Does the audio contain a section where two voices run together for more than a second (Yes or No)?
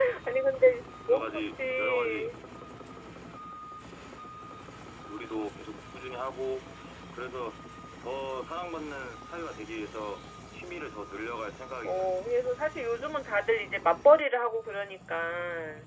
Yes